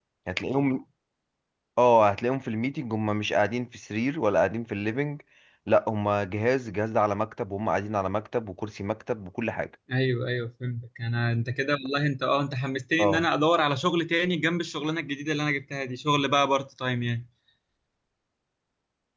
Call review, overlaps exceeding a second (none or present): none